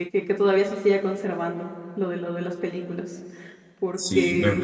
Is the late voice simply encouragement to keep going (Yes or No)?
No